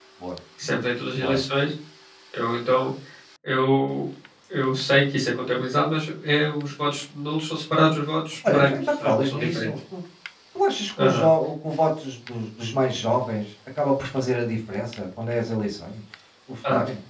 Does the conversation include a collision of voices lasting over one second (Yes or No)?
Yes